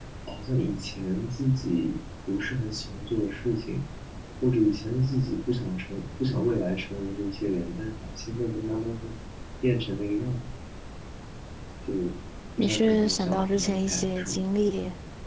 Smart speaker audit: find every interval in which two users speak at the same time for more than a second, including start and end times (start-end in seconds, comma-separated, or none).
12.6-14.4